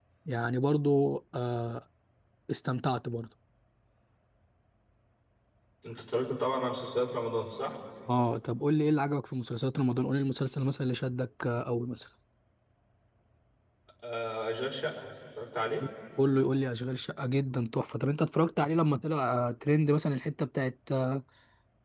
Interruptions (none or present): none